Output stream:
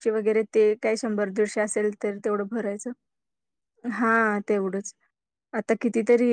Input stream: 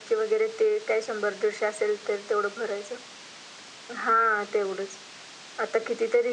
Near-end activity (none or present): none